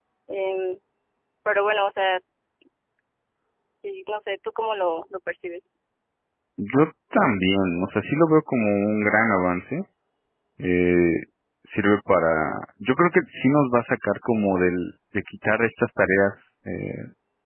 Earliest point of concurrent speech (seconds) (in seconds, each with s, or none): none